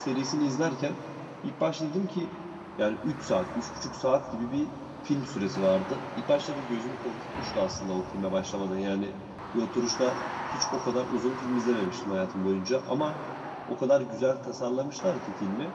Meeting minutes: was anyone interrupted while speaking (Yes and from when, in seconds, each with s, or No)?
No